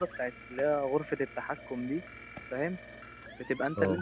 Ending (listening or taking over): listening